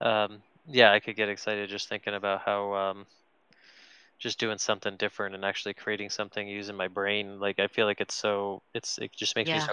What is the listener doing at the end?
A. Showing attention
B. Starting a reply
A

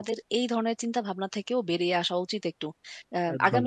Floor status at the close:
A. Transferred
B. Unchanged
B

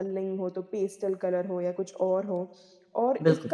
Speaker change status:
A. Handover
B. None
B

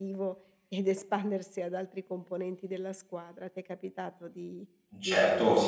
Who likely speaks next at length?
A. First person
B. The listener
B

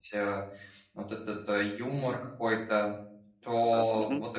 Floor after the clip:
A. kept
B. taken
A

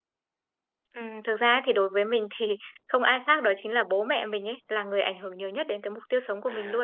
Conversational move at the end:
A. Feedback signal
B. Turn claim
B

